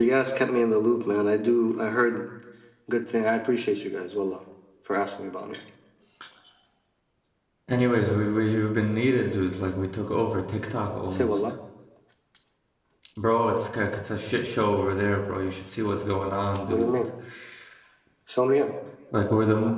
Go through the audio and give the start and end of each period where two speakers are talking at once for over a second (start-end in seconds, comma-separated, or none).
none